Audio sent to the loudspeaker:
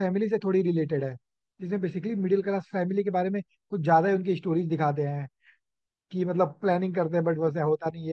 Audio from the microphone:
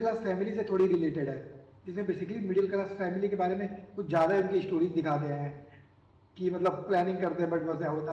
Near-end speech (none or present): none